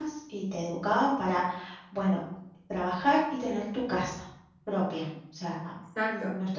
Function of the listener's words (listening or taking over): listening